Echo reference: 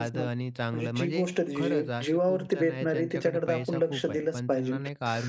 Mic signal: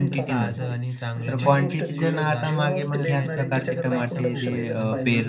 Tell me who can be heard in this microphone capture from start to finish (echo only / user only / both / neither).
both